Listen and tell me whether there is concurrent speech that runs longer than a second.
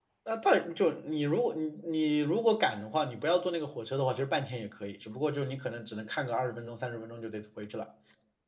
No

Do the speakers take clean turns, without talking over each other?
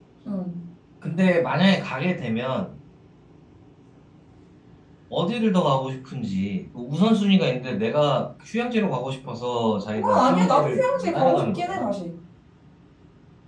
No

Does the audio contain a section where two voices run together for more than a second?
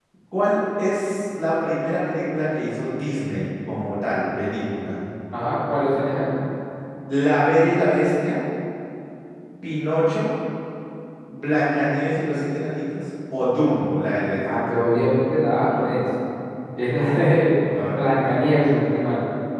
No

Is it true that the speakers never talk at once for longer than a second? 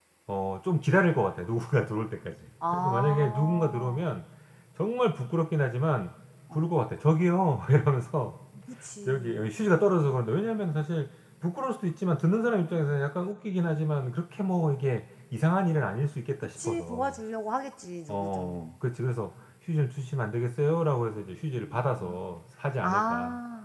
No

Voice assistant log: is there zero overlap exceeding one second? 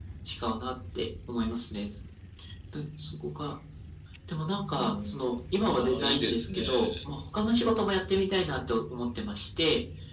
No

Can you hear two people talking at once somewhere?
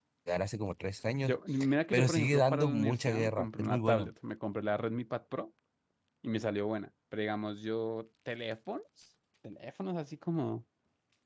Yes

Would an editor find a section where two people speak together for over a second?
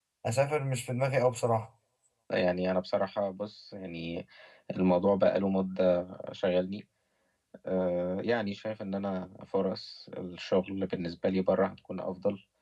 No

